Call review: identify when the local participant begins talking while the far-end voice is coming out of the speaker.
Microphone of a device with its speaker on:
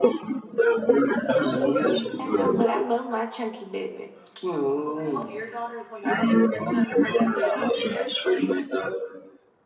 1 s

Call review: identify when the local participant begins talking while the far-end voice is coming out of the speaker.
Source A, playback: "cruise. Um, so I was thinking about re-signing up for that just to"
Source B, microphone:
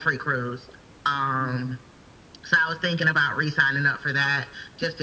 none

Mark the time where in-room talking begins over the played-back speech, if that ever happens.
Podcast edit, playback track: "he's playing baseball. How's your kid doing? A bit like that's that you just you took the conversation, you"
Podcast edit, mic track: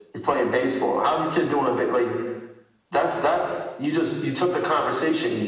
none

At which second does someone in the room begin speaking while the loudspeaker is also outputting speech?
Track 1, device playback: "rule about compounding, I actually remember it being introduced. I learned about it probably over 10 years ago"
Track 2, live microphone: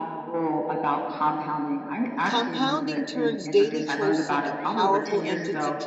2 s

